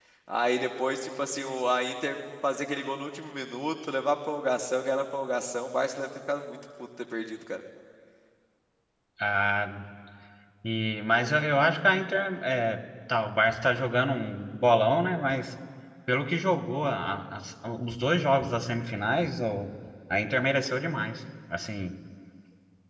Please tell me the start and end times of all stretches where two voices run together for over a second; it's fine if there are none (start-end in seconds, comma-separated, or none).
none